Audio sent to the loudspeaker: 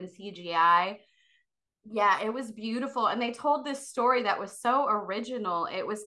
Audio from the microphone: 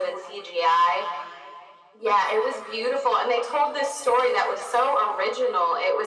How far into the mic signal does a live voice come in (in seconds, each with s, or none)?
none